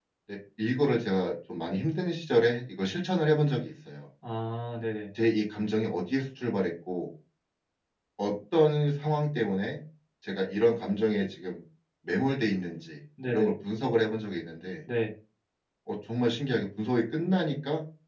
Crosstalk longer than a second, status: none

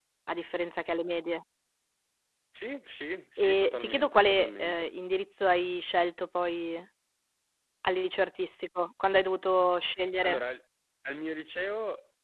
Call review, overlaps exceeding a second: present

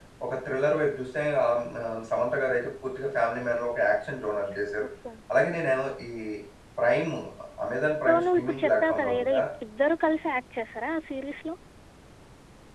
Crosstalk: present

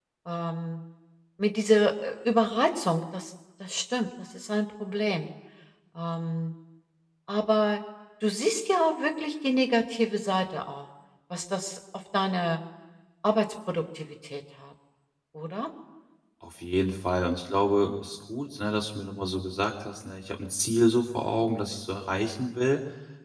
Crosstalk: none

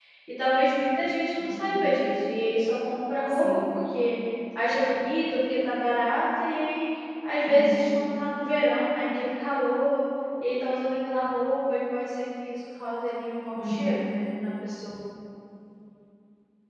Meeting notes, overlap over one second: none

